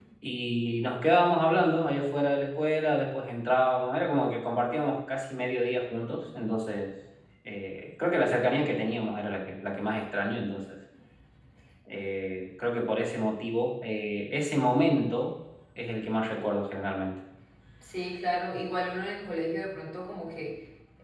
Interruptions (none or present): none